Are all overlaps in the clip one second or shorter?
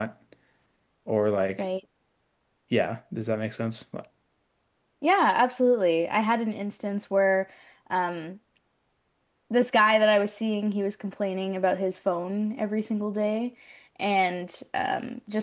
Yes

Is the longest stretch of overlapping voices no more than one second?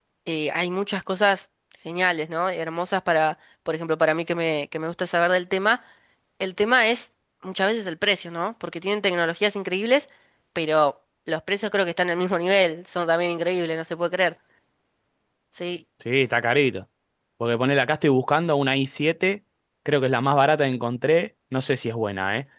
Yes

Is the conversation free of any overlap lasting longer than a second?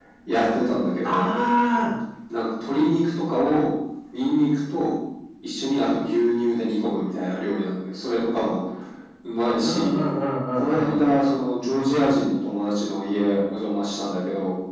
Yes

